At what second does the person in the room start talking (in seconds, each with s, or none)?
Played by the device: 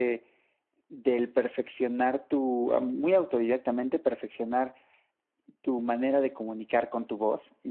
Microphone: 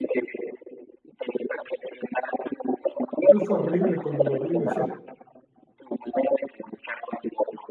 3.3 s